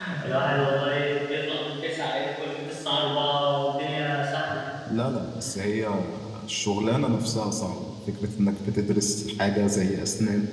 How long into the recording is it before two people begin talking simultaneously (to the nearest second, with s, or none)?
none